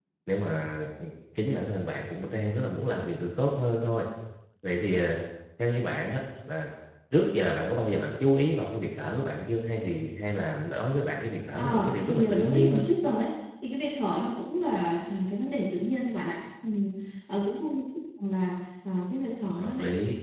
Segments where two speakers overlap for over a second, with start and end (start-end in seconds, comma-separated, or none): 11.6-12.8